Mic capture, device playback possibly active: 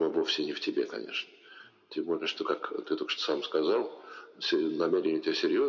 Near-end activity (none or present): none